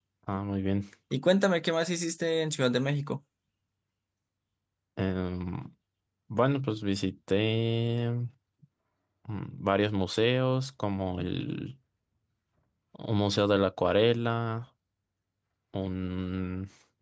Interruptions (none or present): none